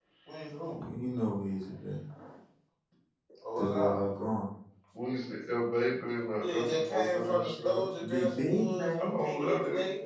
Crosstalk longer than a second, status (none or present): present